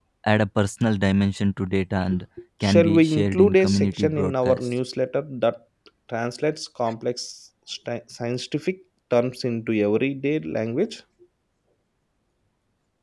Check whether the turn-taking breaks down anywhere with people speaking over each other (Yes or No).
Yes